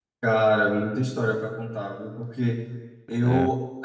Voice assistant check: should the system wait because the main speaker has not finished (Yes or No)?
Yes